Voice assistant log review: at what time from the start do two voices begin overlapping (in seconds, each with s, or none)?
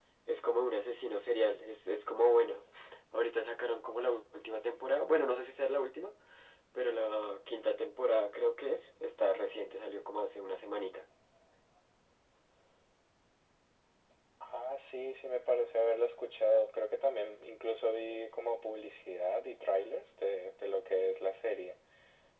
none